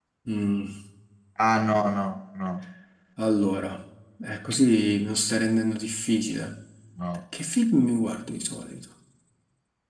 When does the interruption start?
none

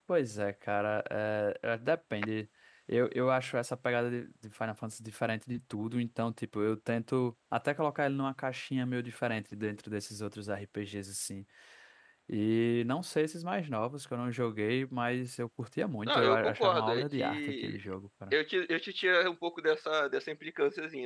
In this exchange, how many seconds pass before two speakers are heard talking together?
16 s

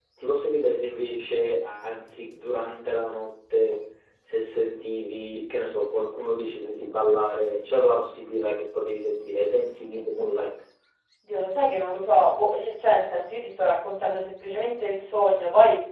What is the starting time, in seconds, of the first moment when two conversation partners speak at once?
none

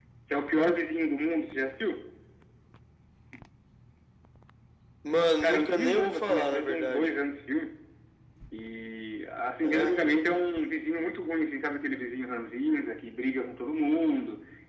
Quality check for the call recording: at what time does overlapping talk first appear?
5 s

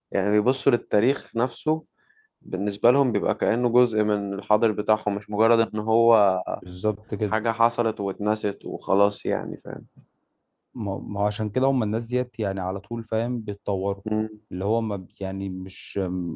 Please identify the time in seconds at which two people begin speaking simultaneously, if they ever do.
none

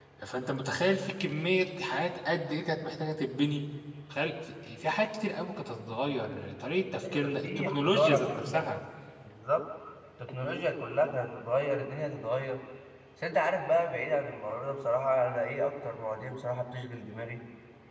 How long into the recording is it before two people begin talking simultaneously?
7 s

